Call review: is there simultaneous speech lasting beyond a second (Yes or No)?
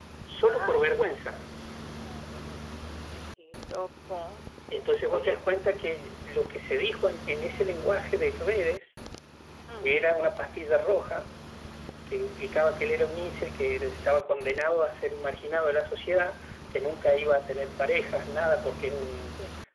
No